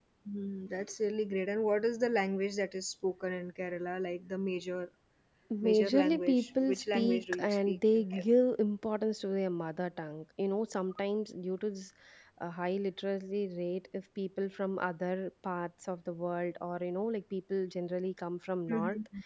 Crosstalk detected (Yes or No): Yes